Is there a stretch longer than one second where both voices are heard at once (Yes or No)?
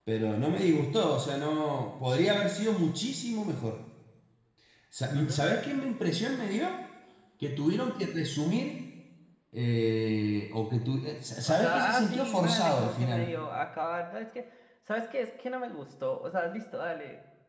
Yes